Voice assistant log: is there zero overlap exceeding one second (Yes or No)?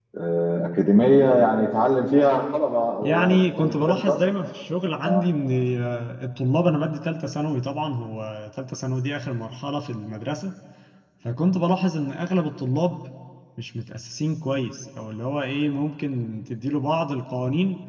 No